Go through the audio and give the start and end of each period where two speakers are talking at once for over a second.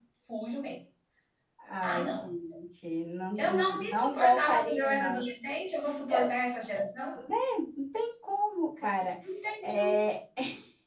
3.4-5.2

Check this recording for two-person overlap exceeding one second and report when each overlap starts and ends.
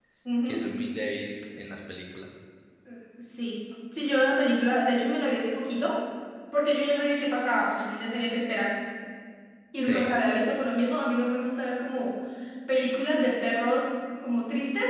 none

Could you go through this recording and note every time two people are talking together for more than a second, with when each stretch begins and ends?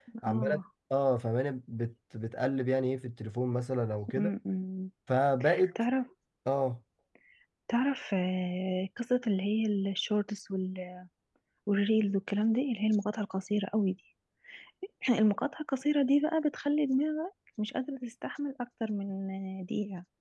none

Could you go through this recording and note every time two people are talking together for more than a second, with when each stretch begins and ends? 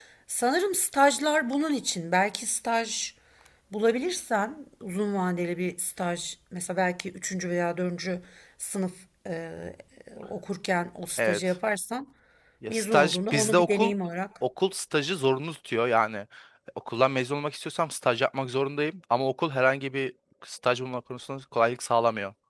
12.7-13.9

